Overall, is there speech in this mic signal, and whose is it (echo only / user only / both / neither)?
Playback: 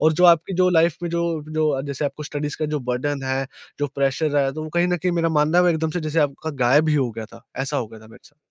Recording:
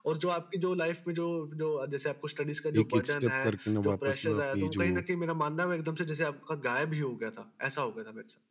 both